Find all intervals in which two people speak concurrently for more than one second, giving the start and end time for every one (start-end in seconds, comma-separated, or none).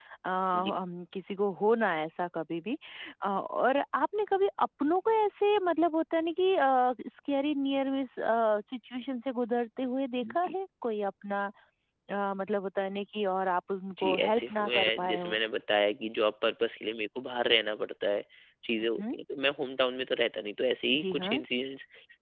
14.0-15.4